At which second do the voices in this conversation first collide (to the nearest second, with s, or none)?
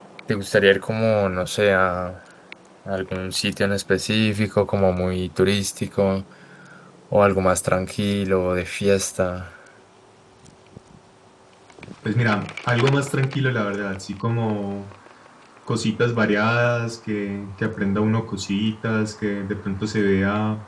none